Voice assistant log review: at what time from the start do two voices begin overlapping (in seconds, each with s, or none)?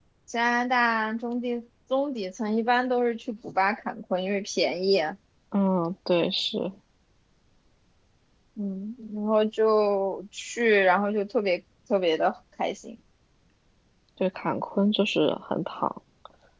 none